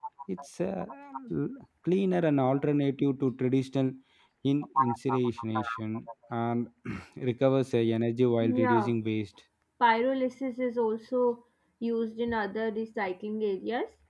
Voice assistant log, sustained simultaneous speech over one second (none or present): none